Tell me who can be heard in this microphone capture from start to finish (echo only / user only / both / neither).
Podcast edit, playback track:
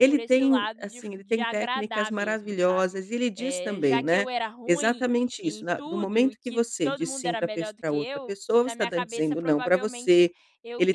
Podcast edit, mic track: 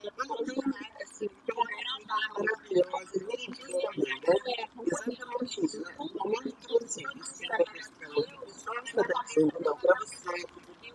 echo only